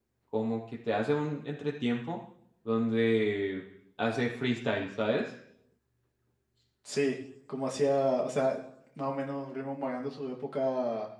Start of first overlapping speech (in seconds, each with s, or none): none